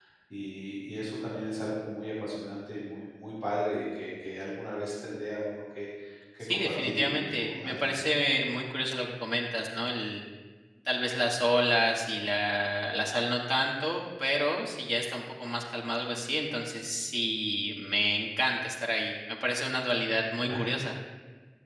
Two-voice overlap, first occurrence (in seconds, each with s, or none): 6.4 s